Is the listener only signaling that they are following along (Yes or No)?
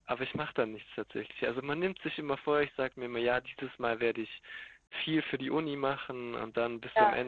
Yes